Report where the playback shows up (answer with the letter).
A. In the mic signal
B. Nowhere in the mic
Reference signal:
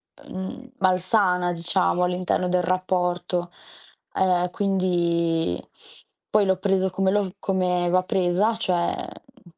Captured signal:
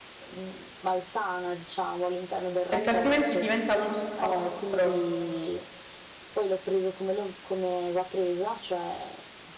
A